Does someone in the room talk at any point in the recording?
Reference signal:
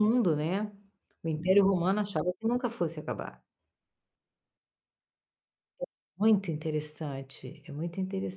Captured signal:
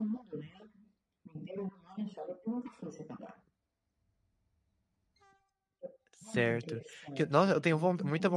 Yes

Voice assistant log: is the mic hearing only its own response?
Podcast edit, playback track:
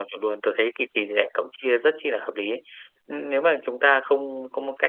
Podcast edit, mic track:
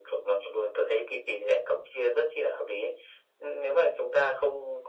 Yes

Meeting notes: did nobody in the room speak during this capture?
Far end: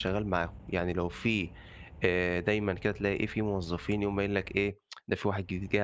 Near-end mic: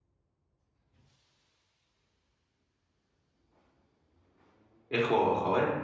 No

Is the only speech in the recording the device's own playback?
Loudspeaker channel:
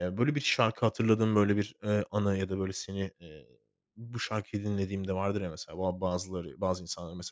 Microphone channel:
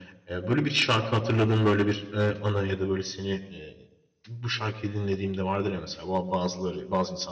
Yes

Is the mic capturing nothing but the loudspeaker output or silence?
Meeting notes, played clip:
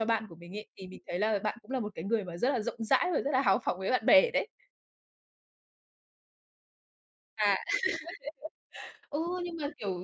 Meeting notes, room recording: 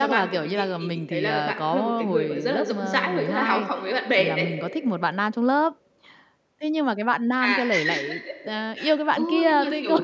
No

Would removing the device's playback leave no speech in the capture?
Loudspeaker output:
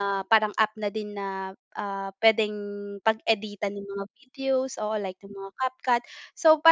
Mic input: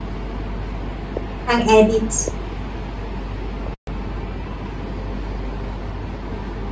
No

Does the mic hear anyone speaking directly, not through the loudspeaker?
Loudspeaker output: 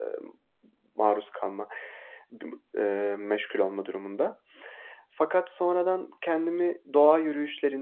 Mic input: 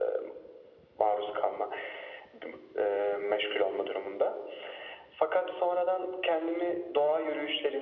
No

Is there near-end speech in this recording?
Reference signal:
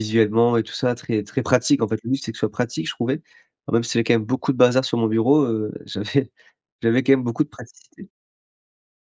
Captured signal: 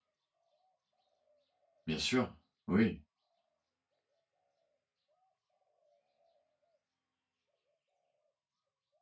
Yes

